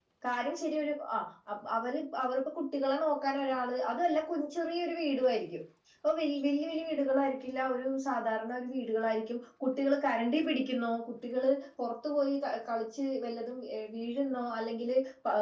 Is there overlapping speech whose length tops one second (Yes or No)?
No